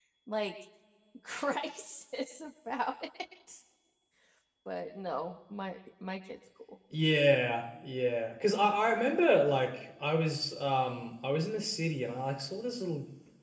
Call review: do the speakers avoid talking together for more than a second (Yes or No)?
Yes